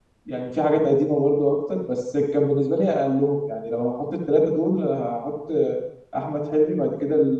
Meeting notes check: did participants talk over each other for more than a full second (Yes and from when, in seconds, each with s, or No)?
No